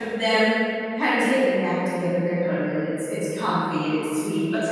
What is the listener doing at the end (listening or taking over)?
listening